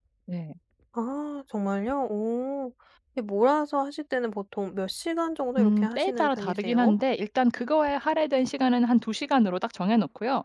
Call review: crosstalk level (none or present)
present